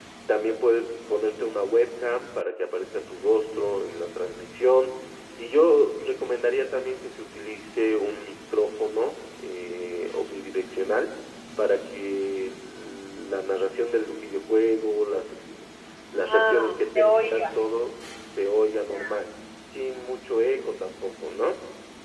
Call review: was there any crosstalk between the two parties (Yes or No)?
Yes